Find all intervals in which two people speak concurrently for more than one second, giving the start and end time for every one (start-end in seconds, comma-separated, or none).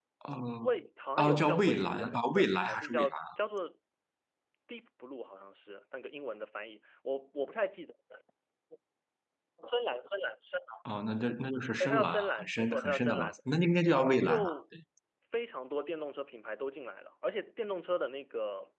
1.2-3.2, 11.8-13.4